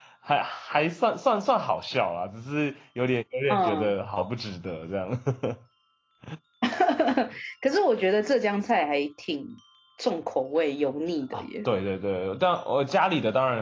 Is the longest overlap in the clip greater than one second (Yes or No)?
No